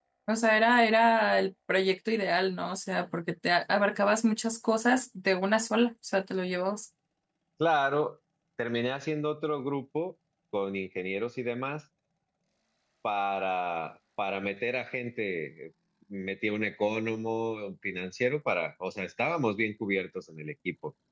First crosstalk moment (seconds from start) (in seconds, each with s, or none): none